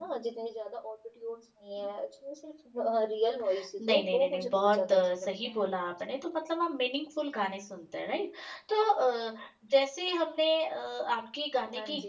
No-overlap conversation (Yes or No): No